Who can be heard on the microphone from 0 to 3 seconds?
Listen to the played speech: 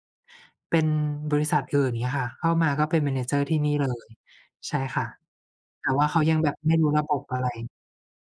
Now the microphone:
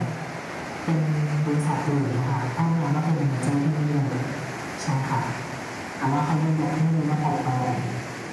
echo only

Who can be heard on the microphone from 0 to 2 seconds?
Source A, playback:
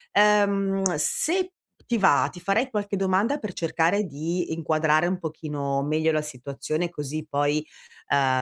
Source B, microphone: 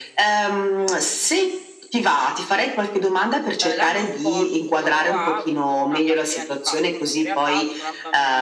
echo only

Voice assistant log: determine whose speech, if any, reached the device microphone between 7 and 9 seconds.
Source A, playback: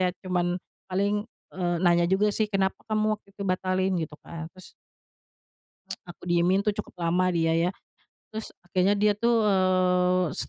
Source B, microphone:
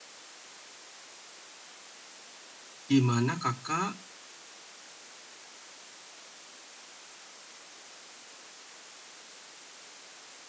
neither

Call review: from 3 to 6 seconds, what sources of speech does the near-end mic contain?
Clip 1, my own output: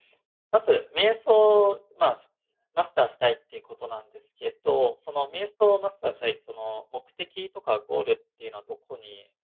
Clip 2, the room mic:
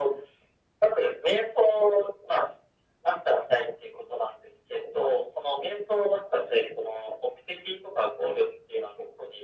echo only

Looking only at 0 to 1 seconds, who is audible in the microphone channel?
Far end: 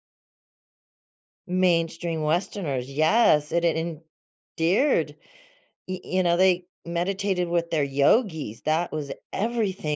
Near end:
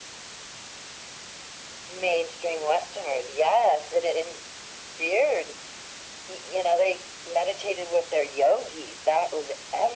neither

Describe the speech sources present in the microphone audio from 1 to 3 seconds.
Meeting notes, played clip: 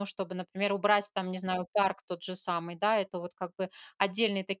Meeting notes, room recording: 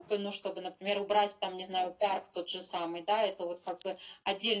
echo only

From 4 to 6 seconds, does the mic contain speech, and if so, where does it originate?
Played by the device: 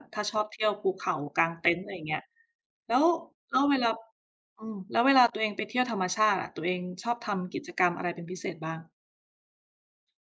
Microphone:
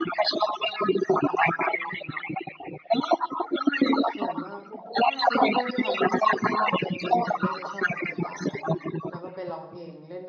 both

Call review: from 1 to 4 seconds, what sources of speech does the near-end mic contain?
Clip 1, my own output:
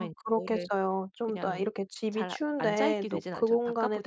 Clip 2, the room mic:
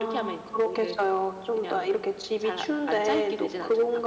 echo only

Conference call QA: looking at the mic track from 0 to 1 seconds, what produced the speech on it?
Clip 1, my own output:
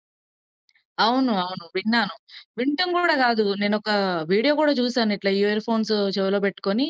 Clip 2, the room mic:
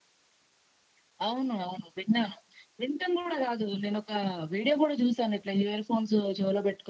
neither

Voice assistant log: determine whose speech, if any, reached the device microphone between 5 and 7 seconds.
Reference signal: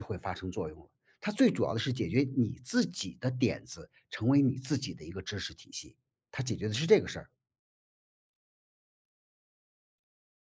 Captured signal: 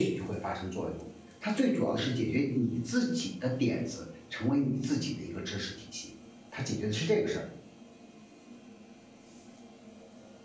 echo only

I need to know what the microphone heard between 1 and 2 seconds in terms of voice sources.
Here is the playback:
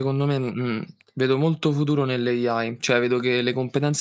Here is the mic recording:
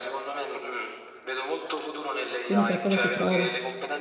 echo only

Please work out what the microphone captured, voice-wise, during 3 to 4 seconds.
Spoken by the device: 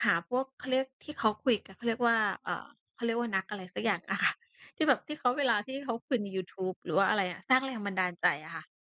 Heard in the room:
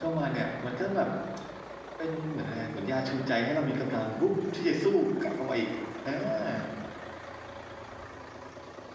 user only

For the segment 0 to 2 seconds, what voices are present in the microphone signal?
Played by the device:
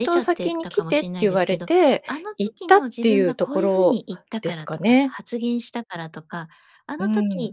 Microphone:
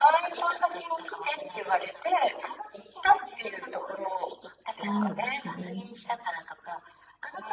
echo only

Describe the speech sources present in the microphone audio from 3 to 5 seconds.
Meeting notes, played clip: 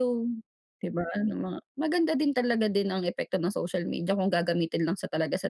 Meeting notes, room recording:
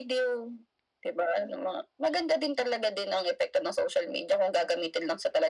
echo only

